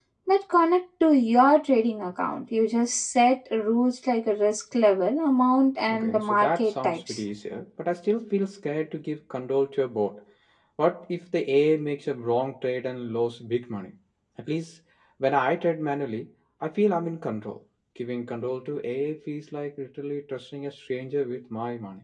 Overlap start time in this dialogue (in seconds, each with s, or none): 5.9 s